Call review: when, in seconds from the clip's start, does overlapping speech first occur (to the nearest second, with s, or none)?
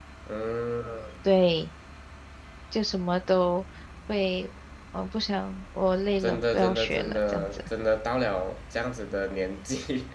6 s